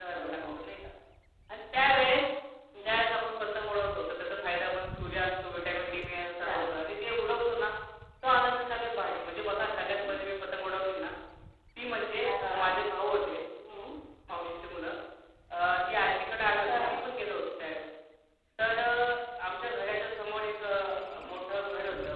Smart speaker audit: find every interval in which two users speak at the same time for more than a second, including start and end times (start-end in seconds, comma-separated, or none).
none